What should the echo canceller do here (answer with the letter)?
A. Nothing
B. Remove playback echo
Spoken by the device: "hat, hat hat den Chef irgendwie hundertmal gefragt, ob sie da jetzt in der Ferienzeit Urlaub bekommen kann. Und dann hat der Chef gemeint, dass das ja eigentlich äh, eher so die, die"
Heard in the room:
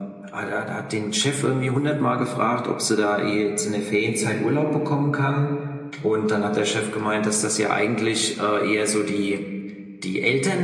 B